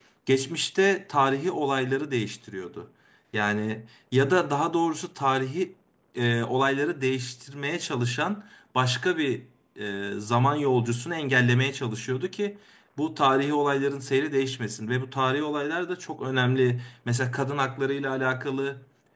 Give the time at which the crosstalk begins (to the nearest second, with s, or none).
none